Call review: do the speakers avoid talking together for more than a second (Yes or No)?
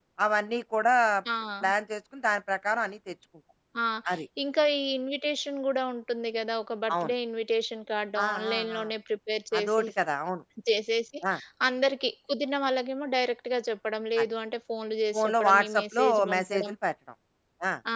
No